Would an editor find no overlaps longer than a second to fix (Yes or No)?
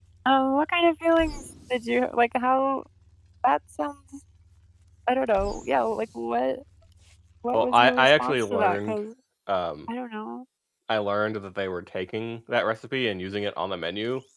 No